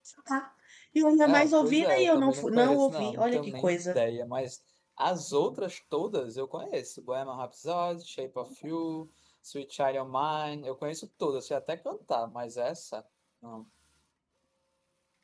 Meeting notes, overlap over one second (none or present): present